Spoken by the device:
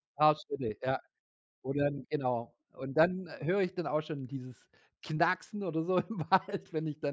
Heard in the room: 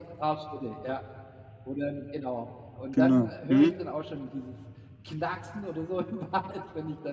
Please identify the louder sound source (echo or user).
user